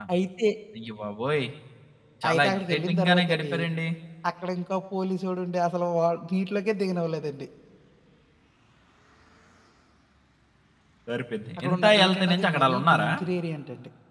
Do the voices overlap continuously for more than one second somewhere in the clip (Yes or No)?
Yes